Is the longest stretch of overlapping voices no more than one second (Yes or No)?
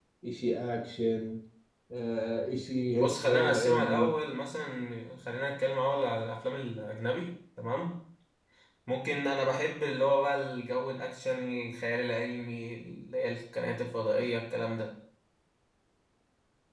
No